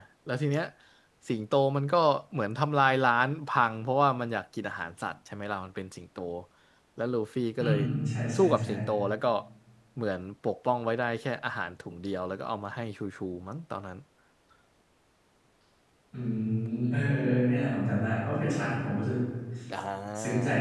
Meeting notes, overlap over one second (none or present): none